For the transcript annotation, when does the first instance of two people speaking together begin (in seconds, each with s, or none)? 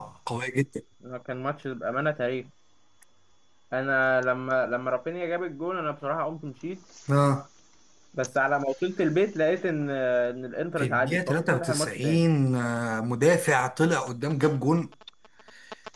10.8 s